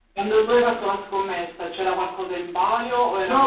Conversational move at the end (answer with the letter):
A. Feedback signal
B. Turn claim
B